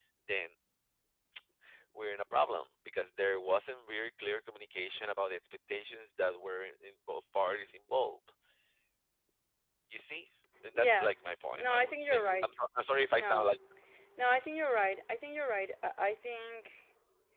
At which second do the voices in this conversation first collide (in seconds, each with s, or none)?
10.7 s